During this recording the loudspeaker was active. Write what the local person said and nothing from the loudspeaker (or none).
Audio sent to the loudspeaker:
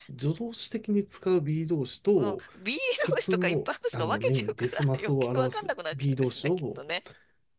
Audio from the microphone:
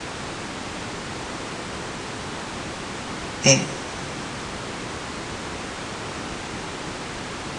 ええ、